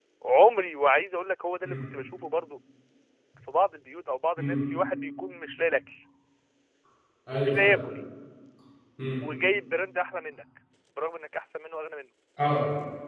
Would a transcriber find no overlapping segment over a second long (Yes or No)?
Yes